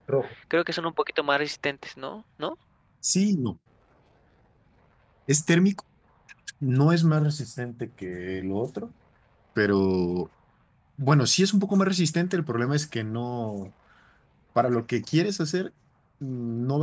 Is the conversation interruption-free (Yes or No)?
Yes